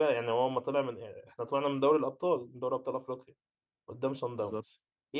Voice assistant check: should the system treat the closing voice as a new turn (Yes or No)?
No